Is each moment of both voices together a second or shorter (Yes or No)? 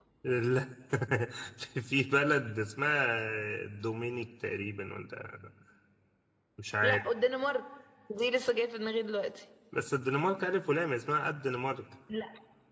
Yes